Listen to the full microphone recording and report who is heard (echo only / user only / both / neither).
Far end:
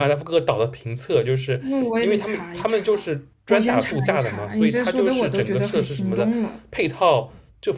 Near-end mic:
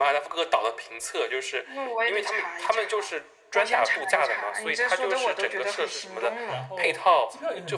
both